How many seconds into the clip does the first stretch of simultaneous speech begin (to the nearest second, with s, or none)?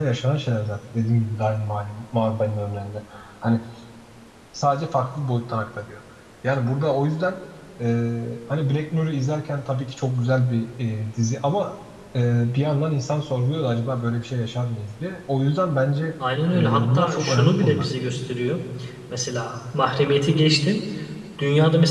17 s